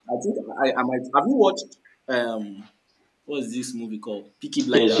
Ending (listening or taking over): taking over